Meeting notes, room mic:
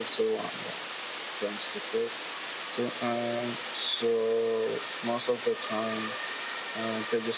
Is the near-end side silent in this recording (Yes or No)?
Yes